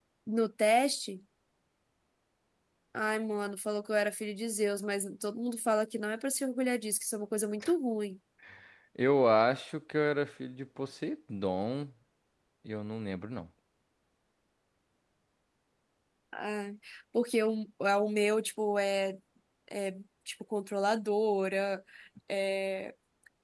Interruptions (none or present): none